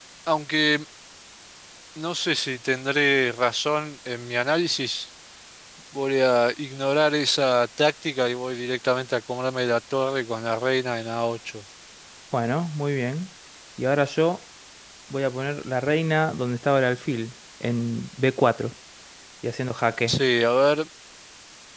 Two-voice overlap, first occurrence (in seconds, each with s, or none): none